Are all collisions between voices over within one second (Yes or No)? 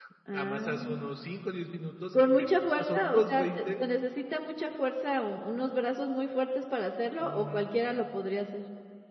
No